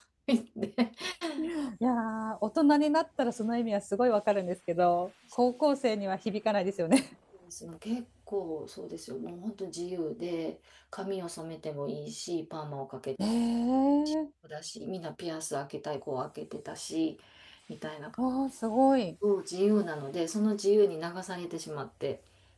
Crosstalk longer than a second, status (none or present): none